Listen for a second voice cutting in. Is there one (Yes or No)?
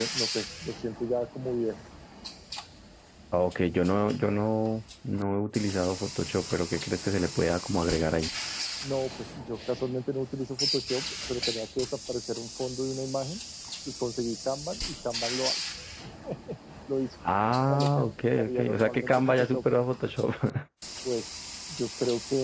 Yes